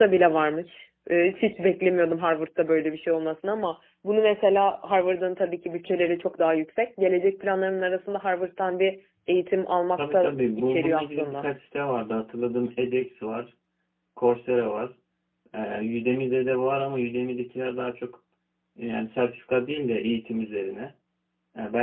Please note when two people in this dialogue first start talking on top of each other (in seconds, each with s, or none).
10.0 s